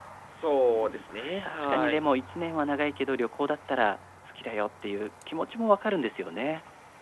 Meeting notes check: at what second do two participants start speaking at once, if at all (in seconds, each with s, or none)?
0.7 s